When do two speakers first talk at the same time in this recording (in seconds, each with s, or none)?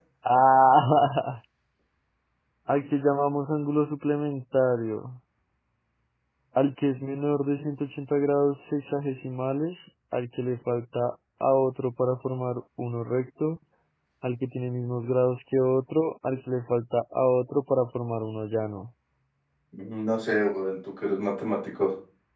none